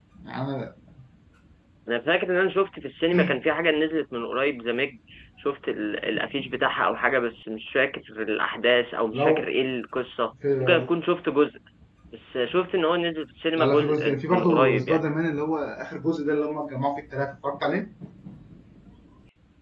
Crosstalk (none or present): present